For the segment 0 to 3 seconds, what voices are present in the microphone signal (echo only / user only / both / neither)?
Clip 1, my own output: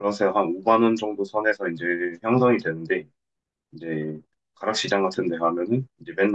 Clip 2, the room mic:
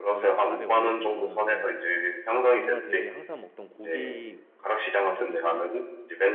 both